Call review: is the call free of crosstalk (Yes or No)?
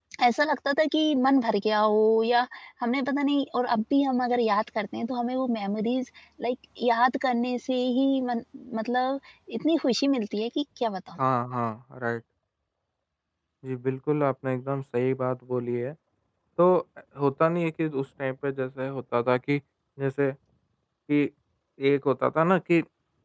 Yes